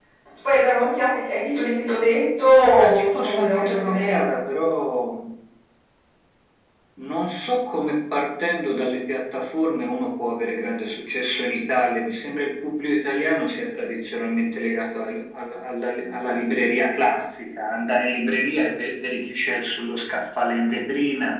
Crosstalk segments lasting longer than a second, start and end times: 2.8-4.5

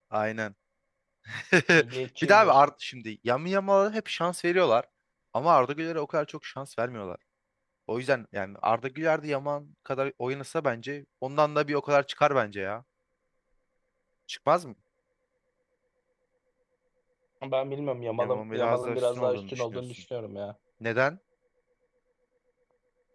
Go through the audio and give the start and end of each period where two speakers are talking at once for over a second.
18.2-19.8

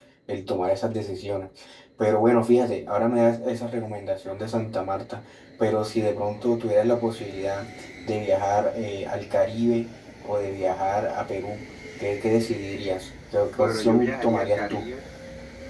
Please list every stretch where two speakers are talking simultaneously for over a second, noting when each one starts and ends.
13.5-14.9

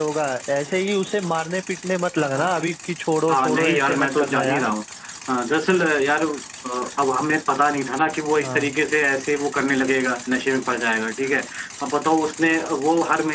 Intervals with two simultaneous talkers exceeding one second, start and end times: 3.3-4.7

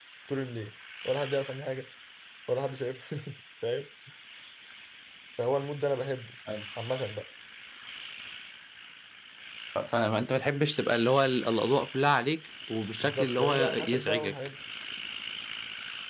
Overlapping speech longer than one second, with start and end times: 13.0-14.3

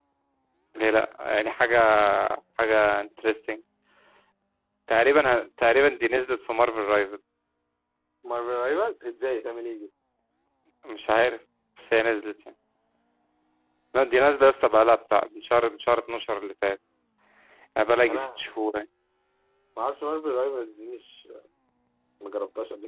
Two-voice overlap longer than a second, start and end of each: none

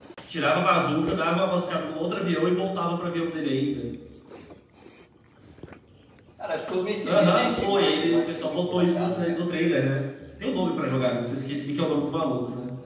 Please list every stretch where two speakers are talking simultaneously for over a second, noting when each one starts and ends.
7.0-9.4

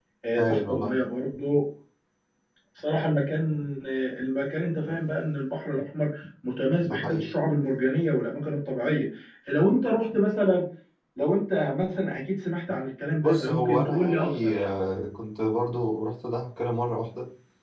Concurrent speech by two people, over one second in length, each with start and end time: 13.2-14.7

